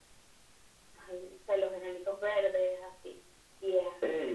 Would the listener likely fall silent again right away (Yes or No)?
No